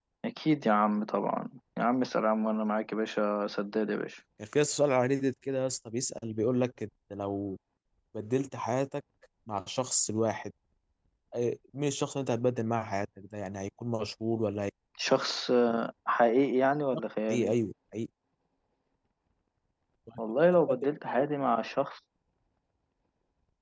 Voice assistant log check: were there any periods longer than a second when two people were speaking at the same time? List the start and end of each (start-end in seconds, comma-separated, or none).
none